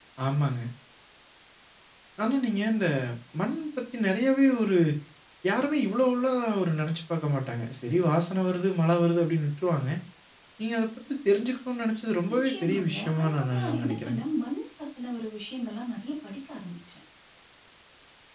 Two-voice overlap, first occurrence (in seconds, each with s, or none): 12.4 s